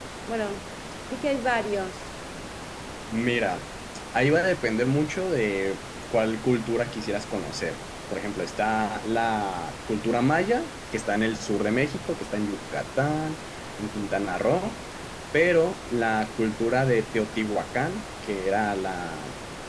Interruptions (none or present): none